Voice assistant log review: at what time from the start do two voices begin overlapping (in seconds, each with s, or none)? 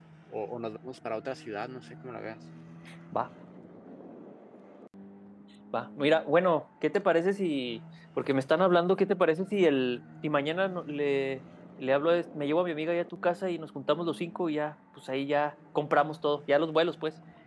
none